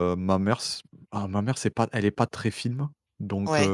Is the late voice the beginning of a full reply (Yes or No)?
No